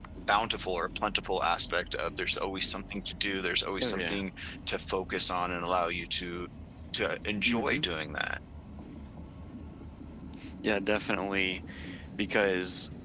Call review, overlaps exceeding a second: none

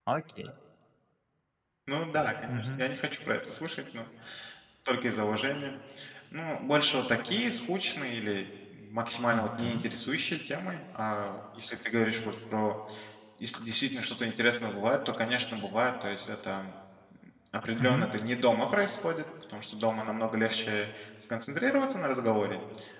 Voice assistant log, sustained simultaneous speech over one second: none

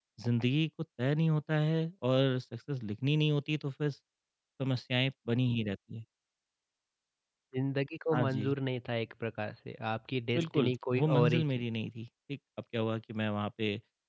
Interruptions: present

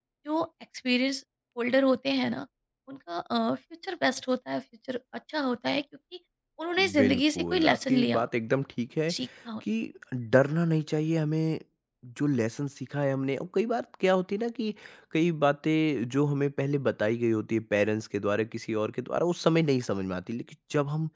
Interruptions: present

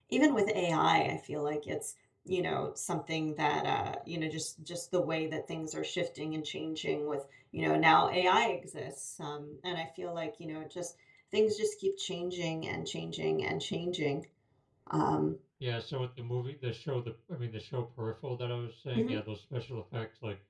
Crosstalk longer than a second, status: none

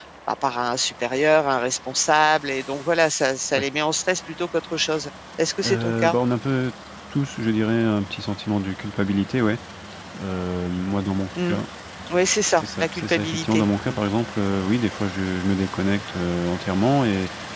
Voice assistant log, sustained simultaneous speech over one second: present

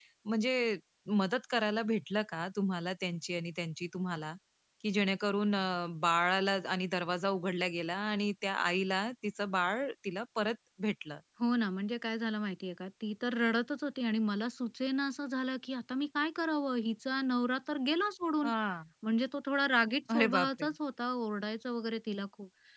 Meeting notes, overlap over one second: none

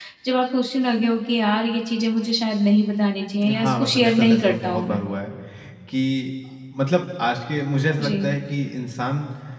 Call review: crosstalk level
present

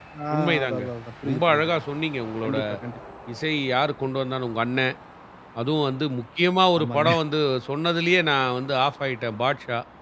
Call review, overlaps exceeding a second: none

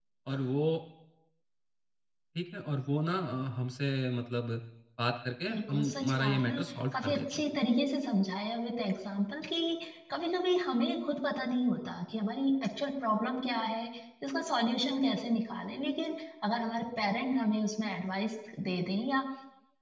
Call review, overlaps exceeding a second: present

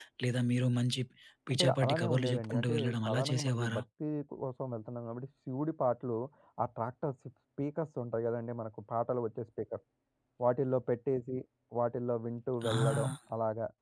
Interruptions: present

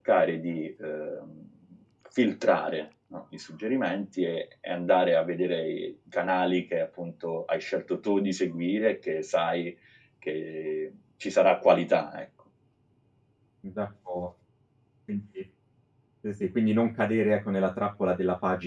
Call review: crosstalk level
none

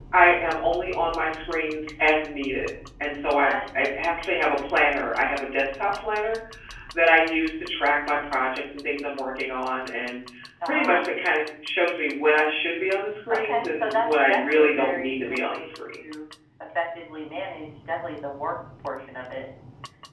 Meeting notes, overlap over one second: present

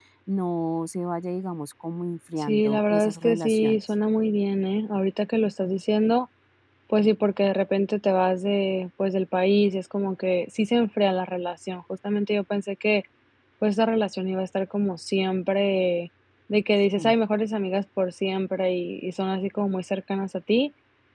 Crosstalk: present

